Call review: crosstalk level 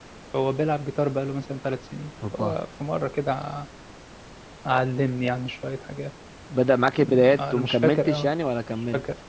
present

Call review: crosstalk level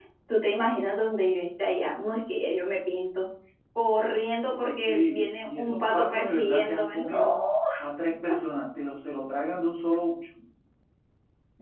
present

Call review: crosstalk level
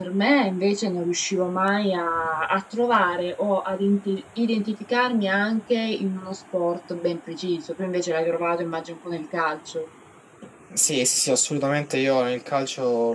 none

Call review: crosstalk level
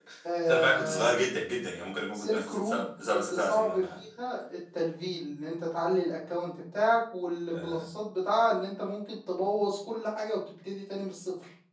present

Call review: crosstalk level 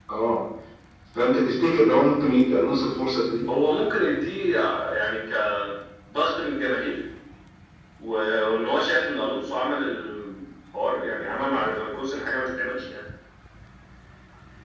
none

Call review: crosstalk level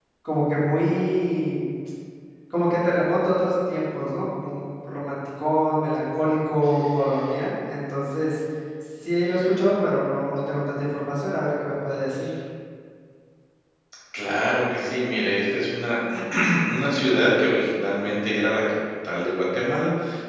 none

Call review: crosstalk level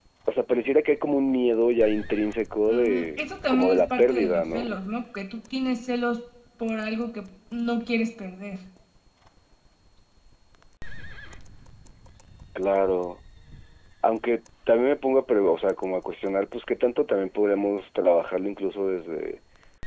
present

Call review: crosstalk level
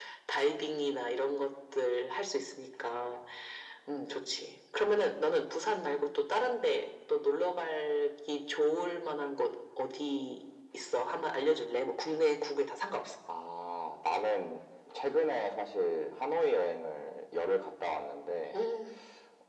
none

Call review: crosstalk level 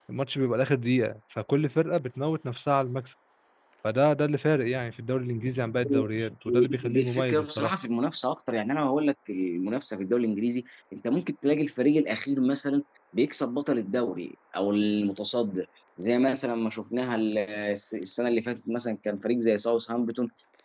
present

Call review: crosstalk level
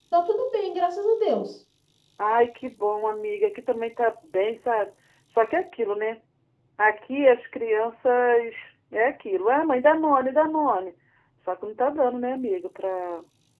none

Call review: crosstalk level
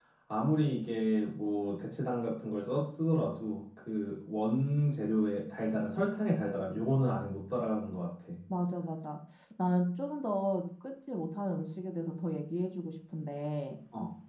none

